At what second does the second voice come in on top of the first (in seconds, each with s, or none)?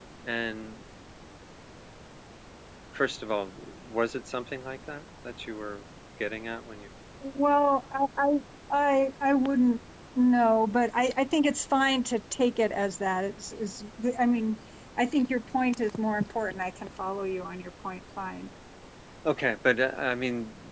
none